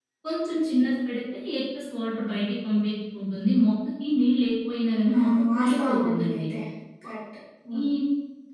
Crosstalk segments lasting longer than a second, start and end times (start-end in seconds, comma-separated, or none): 5.2-6.4